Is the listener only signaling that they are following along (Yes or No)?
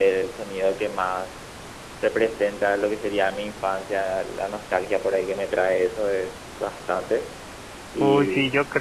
No